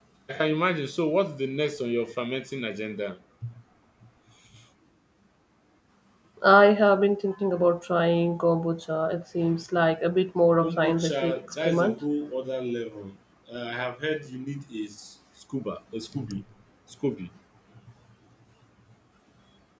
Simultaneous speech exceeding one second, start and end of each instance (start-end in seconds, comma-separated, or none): 10.6-12.0